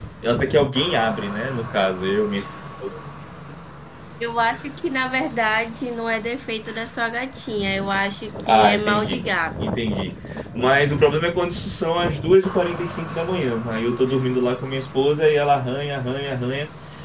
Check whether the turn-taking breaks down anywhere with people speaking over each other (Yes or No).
Yes